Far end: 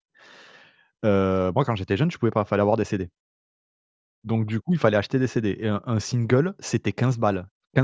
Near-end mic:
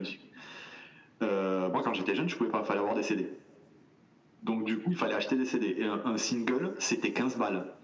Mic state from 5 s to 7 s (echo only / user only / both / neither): echo only